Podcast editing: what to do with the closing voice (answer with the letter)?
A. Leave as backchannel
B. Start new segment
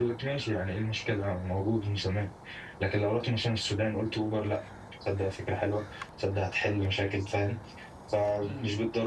A